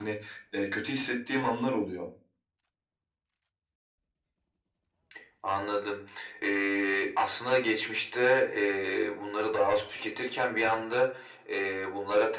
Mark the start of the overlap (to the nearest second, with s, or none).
none